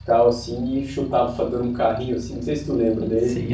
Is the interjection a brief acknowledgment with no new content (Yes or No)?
No